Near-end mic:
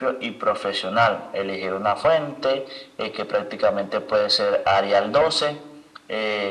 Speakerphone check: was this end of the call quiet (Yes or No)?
Yes